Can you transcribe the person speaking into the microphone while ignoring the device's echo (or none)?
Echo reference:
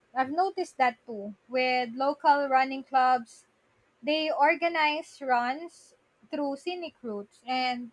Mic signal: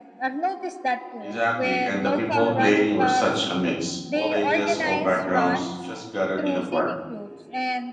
Exactly. And the people playing were such a mix. All ages, all backgrounds, just gathered in a park,